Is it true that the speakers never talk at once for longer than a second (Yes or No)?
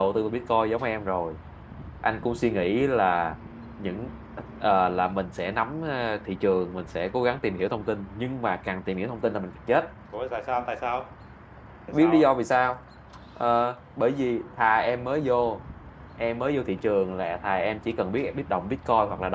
Yes